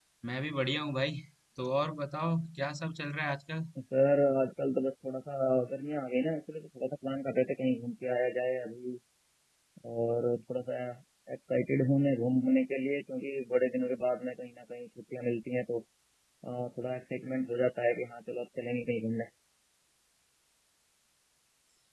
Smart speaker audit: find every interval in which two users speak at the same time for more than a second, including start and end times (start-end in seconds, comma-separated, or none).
none